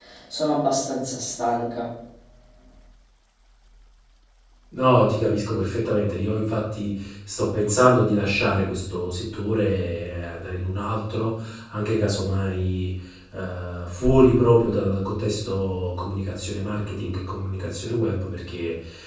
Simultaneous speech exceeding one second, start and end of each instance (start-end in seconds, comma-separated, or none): none